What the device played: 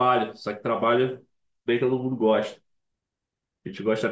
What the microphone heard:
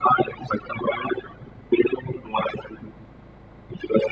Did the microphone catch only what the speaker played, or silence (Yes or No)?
Yes